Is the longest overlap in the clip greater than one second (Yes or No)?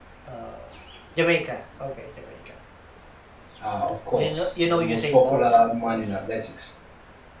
Yes